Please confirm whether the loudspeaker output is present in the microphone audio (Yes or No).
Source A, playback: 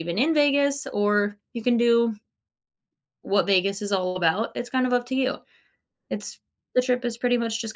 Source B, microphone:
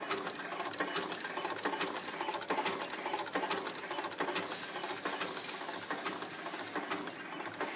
No